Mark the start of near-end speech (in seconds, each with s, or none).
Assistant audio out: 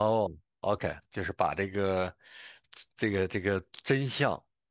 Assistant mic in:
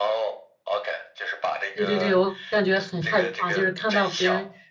1.7 s